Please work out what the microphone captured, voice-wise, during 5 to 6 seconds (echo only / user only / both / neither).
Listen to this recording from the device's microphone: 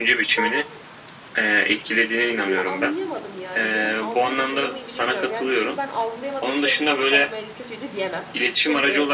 both